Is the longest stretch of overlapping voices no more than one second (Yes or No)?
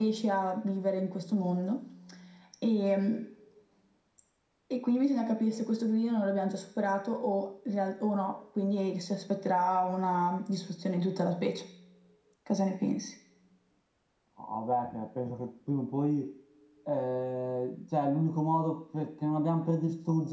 Yes